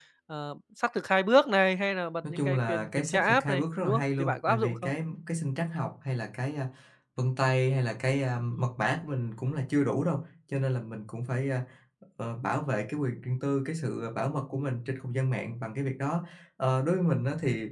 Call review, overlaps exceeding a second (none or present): present